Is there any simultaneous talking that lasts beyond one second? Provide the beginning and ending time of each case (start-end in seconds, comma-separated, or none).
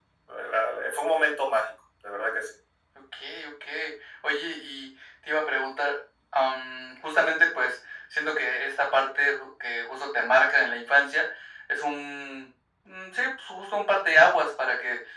none